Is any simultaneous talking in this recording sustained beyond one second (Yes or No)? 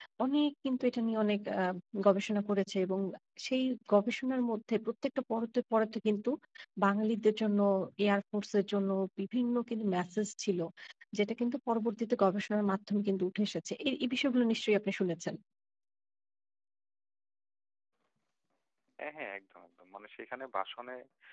No